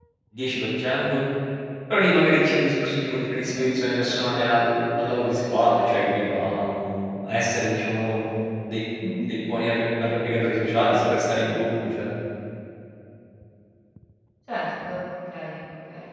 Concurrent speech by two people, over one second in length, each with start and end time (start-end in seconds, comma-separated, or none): none